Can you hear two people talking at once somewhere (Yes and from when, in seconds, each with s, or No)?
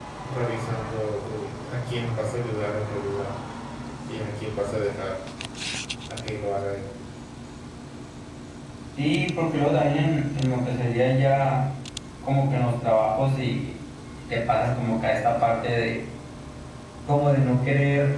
No